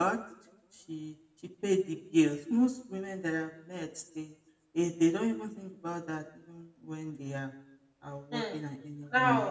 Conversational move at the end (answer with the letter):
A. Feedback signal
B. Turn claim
B